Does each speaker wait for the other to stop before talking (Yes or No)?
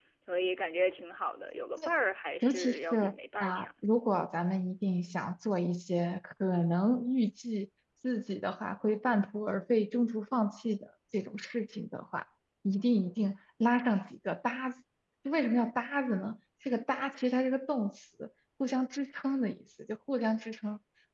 No